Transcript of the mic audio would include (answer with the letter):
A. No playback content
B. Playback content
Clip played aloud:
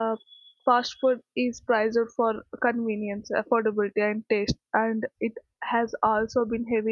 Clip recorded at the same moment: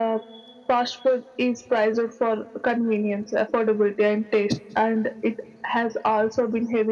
B